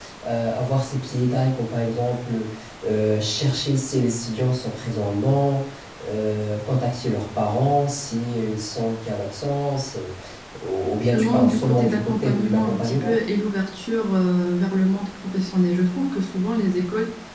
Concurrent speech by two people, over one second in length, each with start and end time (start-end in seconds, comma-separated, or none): 11.0-13.2